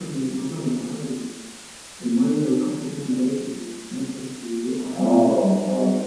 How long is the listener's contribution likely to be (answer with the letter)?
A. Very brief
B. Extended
B